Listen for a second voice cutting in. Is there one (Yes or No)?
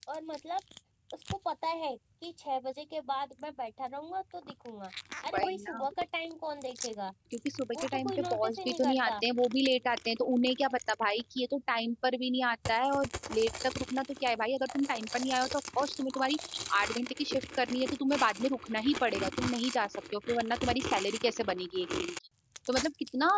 Yes